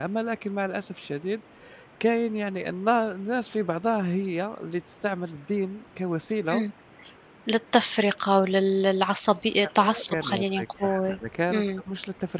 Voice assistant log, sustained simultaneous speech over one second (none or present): present